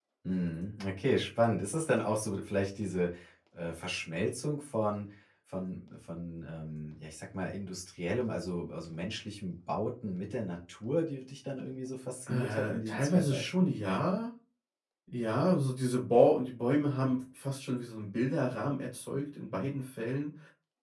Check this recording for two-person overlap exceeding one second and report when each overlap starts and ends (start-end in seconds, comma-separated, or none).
12.3-13.7